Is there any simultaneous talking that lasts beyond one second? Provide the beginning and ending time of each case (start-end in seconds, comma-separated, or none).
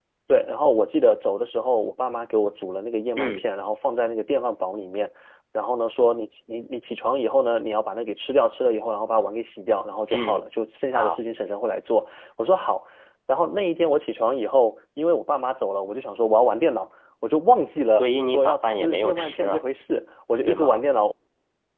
17.9-19.6